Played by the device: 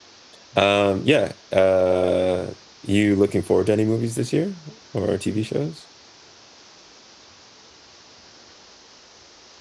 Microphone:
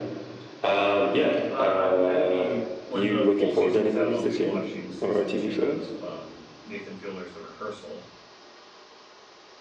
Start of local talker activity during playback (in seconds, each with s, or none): 0.9 s